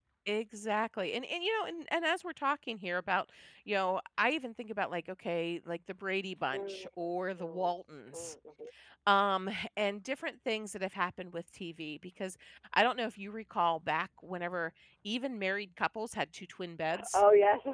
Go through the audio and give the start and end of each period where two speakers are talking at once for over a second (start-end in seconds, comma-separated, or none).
none